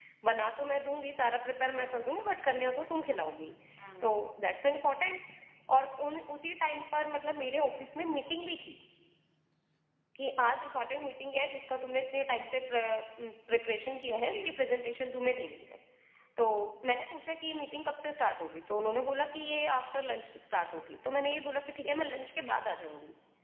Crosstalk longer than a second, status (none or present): none